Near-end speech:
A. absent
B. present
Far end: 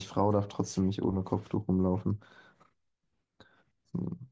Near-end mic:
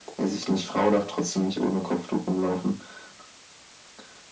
A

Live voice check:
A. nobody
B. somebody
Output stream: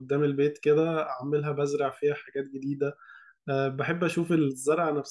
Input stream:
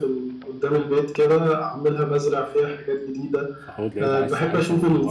B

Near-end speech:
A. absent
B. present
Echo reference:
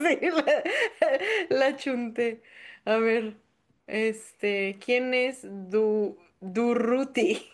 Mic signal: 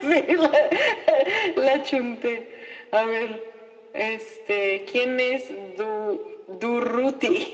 A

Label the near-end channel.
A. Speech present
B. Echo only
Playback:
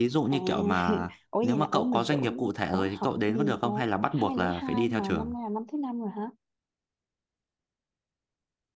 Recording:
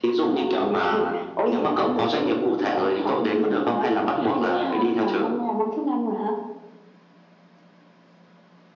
B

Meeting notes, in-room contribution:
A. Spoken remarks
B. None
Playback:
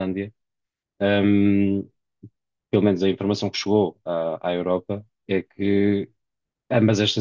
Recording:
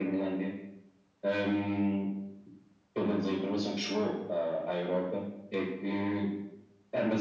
B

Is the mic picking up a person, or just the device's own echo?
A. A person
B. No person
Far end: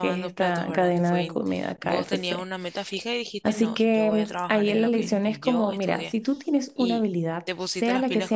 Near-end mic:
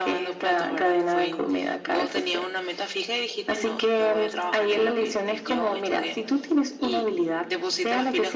B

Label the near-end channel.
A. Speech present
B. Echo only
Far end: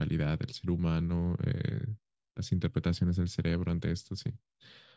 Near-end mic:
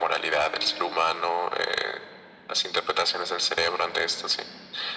B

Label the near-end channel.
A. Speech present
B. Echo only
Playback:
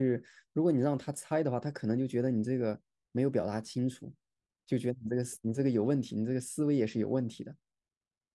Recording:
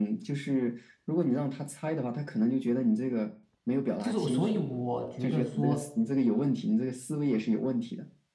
A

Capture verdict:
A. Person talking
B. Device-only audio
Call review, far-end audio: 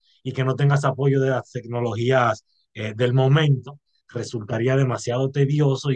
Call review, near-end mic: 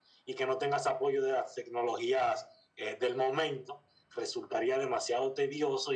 B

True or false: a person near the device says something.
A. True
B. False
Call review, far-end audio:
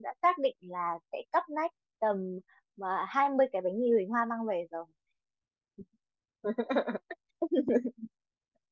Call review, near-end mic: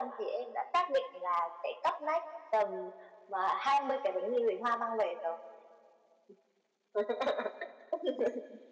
B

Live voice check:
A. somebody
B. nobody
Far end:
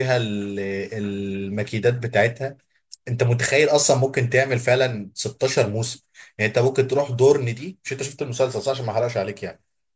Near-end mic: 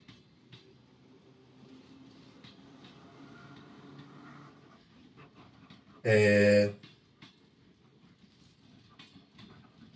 A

